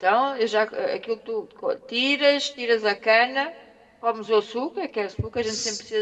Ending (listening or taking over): listening